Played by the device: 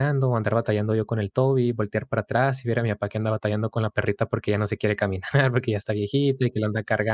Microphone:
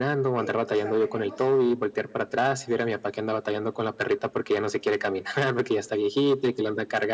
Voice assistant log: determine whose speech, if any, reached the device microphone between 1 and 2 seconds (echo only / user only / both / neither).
both